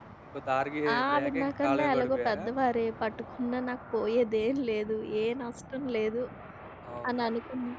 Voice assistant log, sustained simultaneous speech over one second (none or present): present